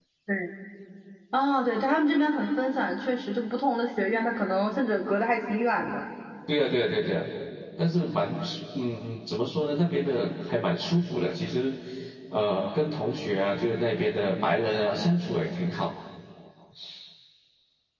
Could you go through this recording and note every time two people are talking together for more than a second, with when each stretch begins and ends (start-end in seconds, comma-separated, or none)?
none